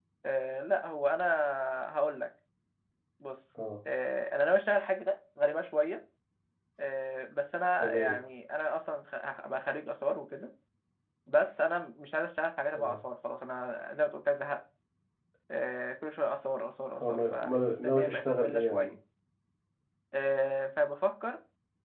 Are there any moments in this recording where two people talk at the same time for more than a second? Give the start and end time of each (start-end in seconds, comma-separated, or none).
17.0-18.9